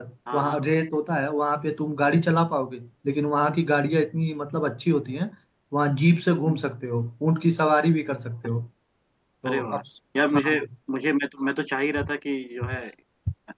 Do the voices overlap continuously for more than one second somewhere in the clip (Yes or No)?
No